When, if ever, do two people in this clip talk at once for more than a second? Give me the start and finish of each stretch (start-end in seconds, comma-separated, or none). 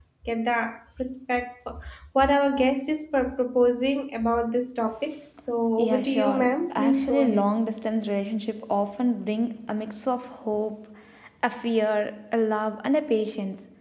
5.8-7.5